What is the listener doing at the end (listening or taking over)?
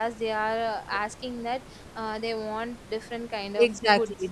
taking over